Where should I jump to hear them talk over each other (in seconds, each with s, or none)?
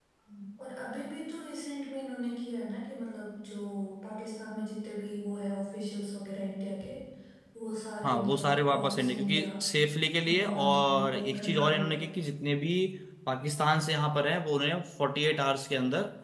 8.0 s